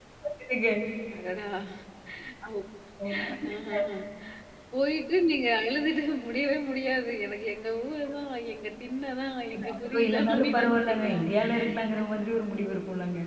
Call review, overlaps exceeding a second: present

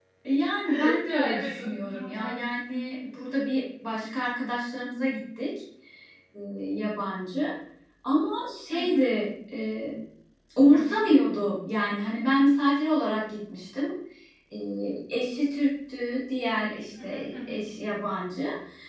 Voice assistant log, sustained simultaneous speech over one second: present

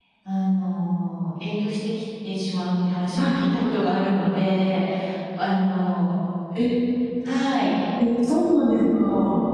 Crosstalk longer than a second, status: none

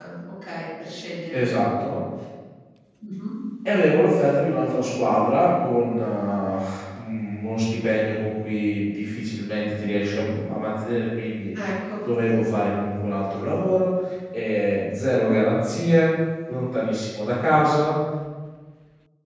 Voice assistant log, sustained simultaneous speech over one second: none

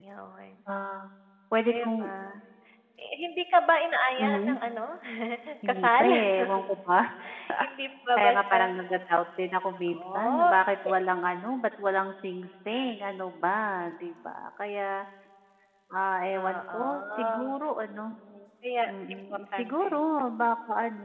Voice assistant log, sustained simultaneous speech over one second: present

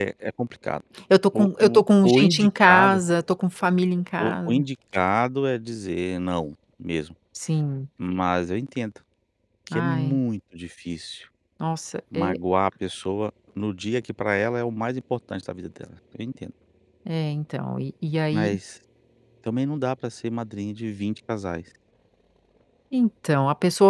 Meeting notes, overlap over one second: present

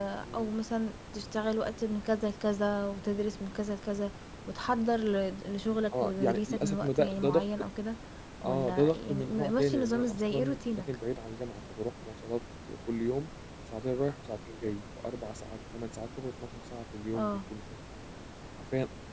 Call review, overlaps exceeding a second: present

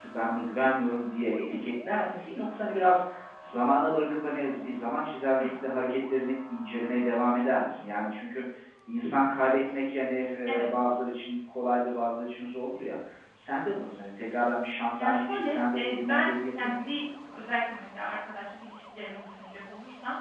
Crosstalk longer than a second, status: present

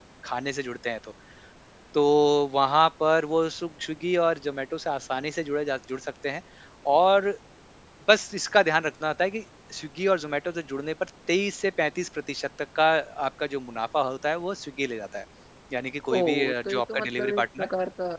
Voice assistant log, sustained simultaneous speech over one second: present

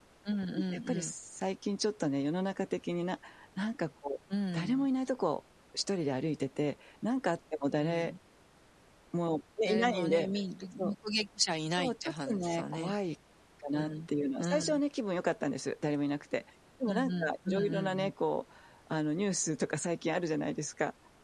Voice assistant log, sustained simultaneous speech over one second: present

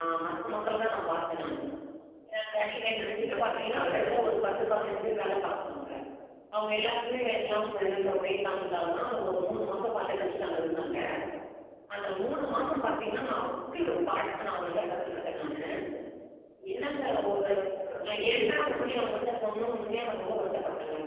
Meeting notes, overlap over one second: present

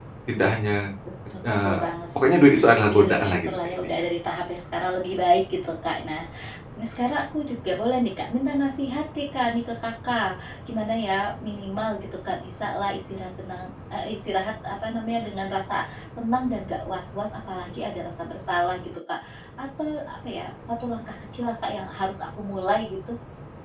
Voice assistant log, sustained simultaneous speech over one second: present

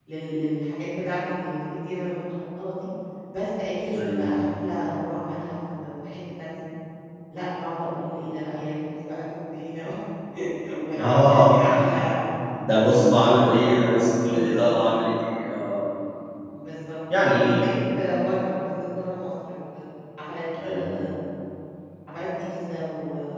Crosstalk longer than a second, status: present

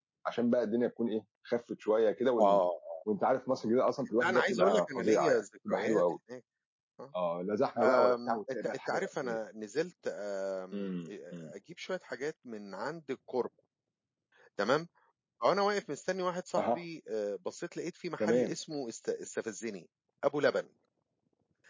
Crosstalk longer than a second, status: present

